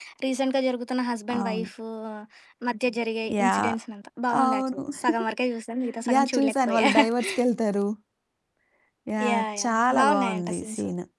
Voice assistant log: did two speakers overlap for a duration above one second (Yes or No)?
Yes